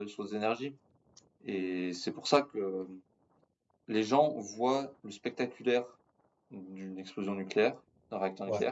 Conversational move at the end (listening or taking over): listening